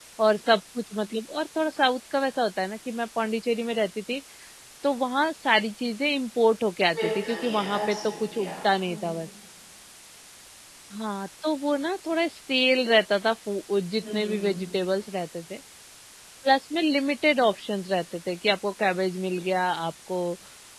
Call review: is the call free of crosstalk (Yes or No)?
No